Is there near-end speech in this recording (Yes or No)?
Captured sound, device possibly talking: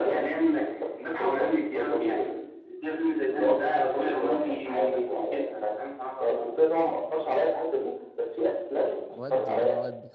Yes